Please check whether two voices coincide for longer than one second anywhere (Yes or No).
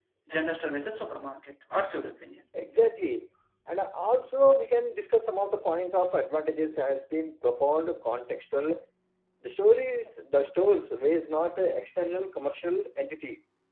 No